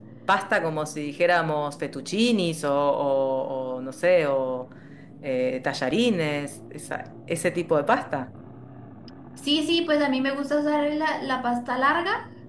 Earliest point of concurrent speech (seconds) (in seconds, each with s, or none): none